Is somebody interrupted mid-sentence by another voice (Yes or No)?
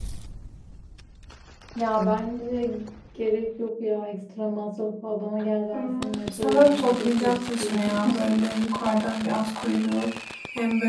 Yes